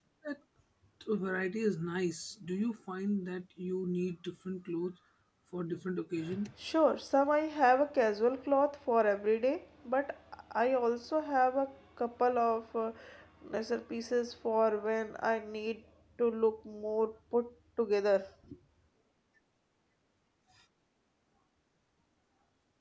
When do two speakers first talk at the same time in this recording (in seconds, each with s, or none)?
none